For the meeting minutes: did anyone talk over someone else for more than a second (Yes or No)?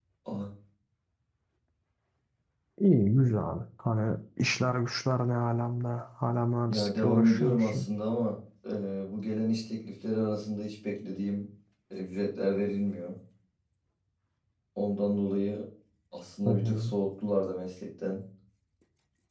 Yes